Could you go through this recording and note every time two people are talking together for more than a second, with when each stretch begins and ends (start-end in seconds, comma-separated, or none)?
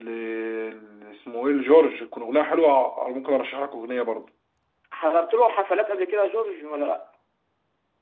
none